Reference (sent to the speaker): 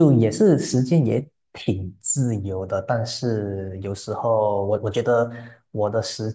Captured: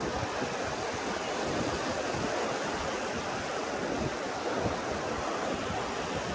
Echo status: none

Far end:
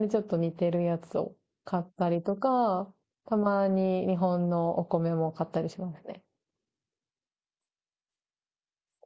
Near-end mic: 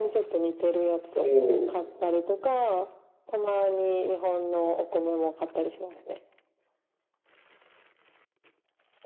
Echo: present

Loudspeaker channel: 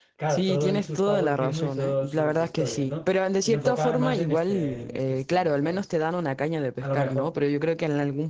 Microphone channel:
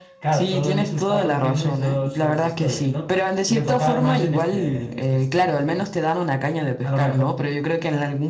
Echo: present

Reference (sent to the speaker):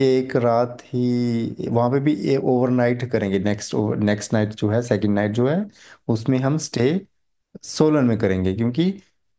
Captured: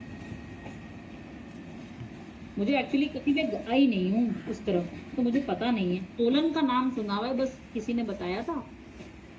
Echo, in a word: none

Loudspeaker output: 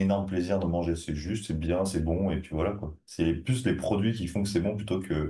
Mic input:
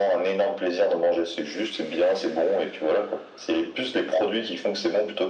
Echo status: present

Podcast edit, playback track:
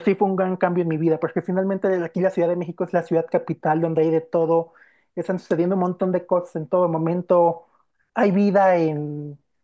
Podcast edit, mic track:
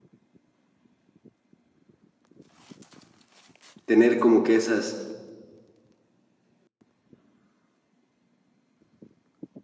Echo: none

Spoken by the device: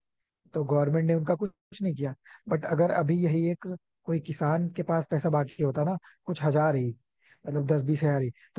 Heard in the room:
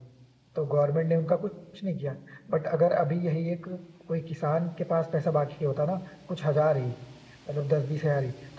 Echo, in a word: present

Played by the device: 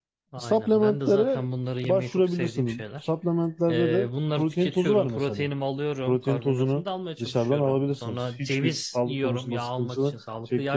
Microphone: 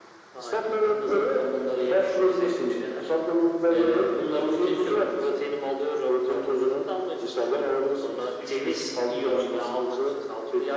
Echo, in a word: present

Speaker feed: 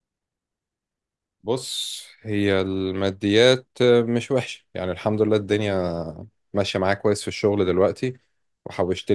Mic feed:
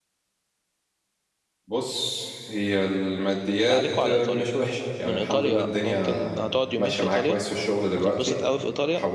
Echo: present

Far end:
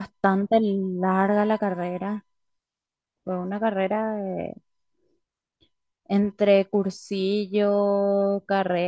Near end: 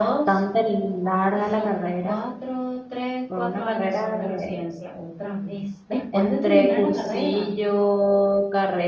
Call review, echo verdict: present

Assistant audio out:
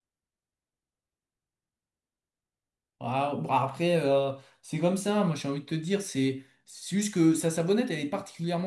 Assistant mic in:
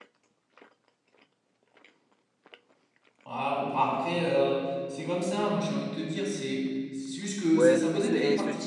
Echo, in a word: present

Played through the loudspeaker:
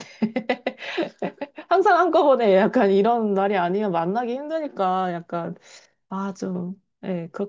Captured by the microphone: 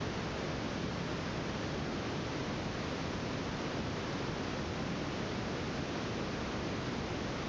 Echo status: none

